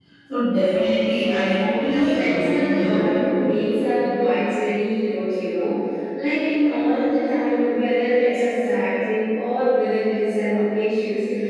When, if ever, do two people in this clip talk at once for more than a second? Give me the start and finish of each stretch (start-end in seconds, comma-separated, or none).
1.0-3.3